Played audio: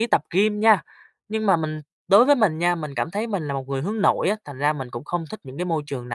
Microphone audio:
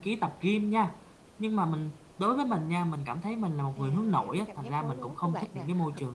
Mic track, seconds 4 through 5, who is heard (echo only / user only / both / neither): both